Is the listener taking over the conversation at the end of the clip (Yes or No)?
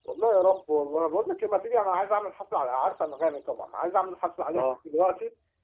No